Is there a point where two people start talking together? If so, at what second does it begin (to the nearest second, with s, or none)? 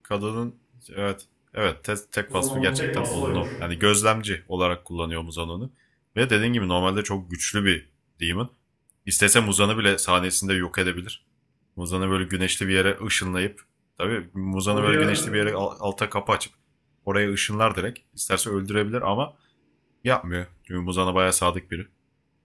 2 s